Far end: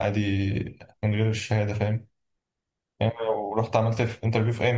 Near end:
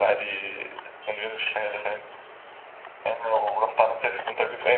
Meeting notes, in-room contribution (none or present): none